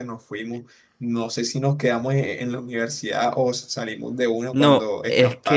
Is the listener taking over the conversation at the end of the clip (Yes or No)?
Yes